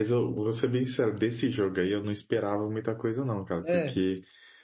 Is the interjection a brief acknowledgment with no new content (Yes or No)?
Yes